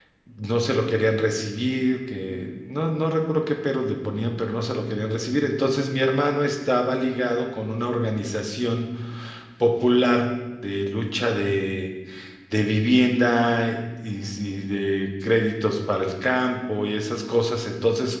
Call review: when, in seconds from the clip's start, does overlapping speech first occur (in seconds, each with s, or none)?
none